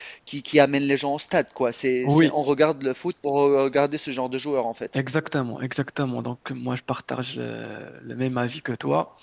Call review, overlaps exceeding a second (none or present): none